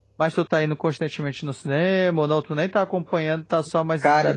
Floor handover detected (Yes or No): Yes